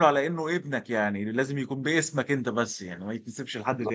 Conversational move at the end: taking over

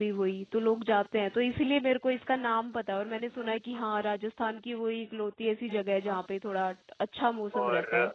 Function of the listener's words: taking over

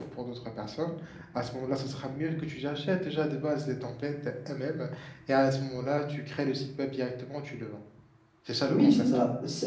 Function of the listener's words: taking over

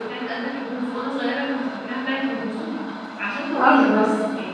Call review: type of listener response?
listening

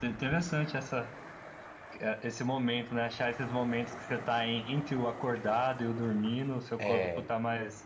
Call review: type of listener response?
listening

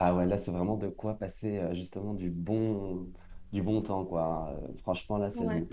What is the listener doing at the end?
listening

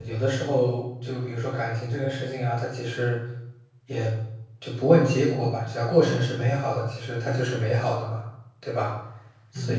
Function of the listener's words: taking over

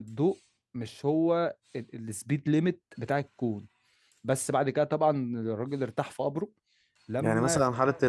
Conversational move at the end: taking over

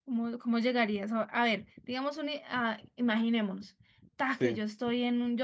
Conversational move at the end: listening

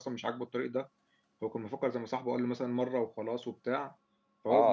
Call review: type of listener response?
taking over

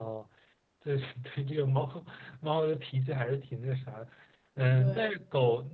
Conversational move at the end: listening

